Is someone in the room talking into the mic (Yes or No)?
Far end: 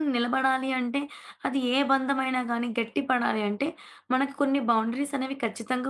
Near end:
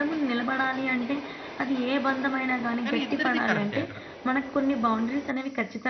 Yes